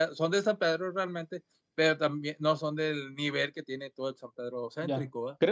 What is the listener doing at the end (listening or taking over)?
taking over